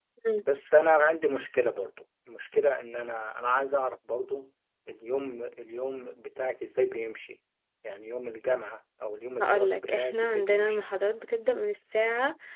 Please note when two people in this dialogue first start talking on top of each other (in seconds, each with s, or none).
9.4 s